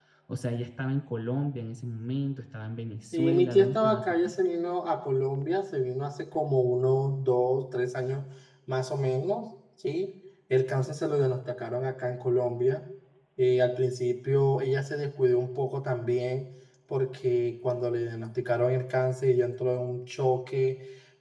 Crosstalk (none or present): present